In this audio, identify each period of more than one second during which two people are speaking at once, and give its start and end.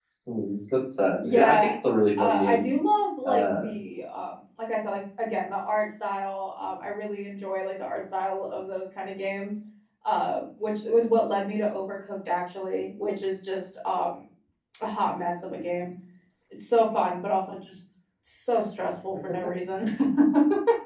none

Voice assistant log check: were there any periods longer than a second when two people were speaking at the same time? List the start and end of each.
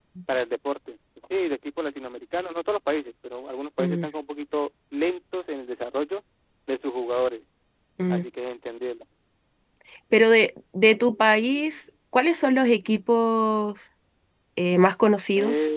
none

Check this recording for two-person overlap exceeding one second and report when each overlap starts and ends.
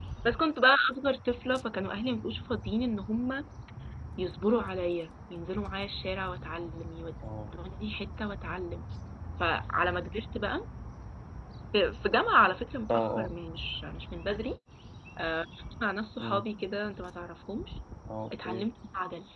none

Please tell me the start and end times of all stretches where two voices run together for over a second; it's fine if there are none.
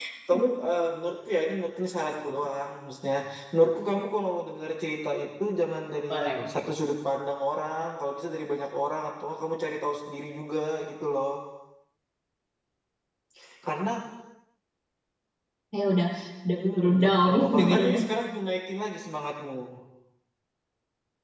16.5-17.9

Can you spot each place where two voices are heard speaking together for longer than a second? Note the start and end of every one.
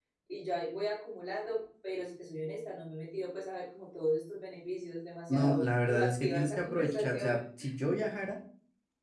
5.3-7.4

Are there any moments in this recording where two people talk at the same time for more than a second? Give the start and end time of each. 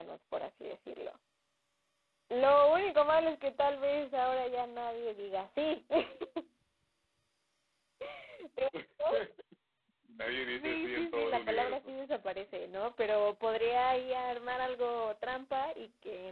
10.5-11.9

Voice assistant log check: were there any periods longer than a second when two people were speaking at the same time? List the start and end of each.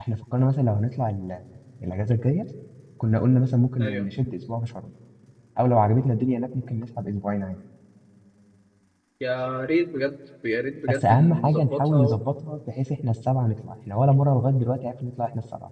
10.9-12.2

